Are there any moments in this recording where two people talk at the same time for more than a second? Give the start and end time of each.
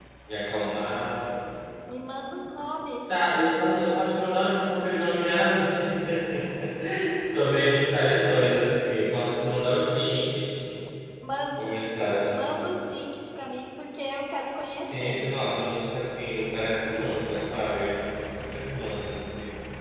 none

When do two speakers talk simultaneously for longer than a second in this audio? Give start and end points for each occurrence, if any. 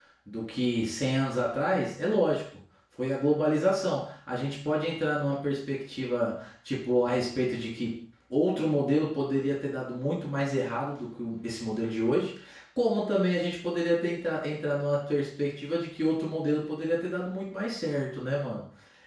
none

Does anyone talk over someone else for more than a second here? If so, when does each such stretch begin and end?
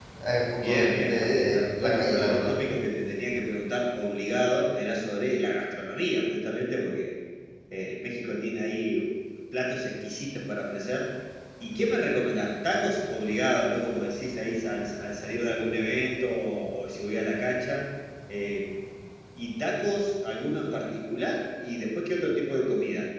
0.6-2.5

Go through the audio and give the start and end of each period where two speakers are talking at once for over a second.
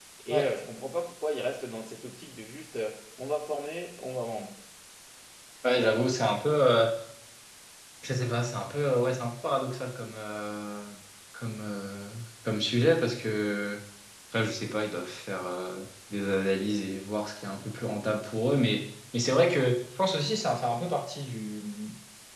none

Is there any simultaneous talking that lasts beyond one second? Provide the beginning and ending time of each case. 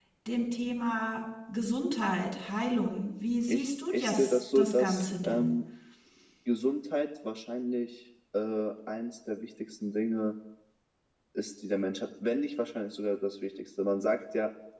3.5-5.5

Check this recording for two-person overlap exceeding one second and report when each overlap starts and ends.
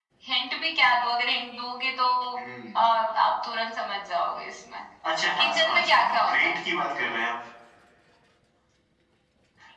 5.4-6.6

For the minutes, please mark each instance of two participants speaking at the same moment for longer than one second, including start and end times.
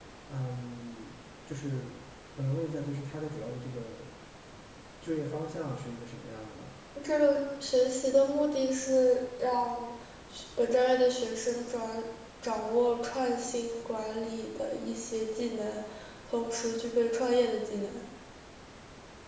none

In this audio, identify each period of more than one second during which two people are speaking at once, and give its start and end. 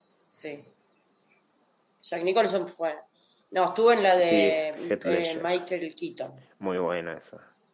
4.2-5.5

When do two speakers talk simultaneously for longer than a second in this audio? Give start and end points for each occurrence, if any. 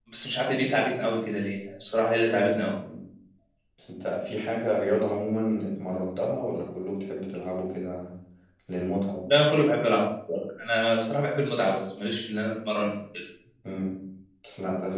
none

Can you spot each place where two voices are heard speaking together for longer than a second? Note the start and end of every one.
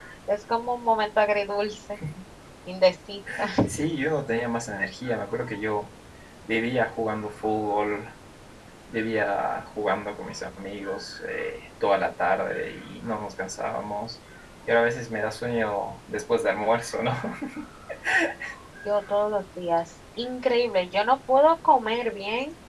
none

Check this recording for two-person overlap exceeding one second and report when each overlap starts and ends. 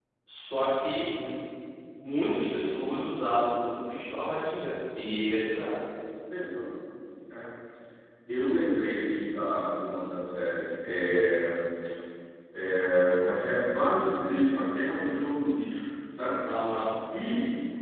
none

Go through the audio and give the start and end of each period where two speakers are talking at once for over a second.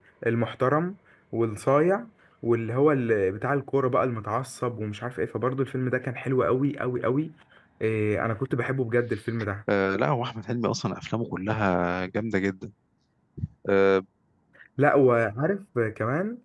none

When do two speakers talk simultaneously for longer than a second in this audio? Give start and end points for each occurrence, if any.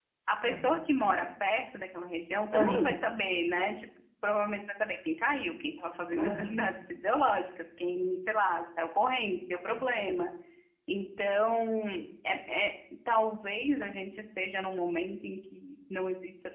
none

